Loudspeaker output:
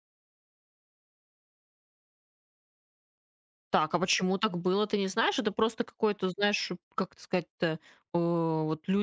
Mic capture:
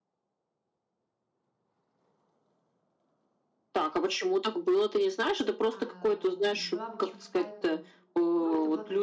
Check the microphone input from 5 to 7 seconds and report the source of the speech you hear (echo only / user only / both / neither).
both